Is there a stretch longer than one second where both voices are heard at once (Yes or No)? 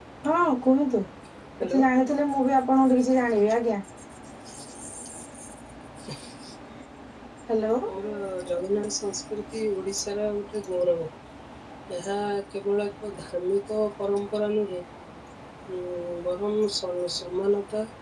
No